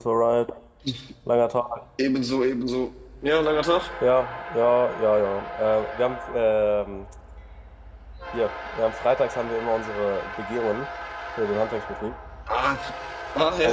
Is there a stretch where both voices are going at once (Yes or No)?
No